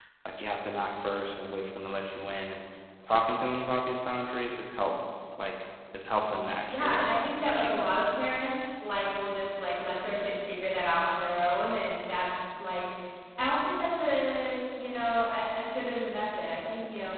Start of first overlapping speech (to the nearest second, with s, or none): 7 s